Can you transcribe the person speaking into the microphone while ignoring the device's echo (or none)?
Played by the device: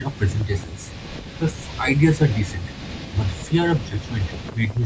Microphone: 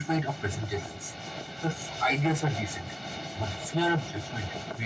none